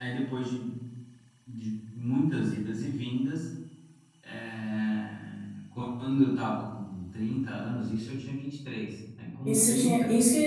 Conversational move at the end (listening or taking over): taking over